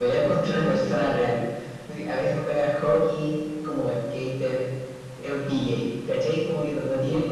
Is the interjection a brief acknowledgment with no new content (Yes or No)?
No